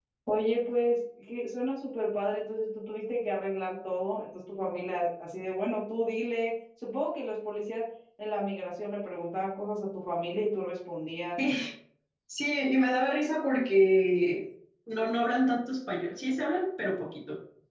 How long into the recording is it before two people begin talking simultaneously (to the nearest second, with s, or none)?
none